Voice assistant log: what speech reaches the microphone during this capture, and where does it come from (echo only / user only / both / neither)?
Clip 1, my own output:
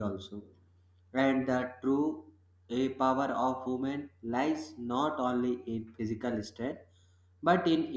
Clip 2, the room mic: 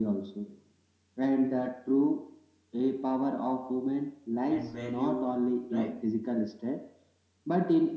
both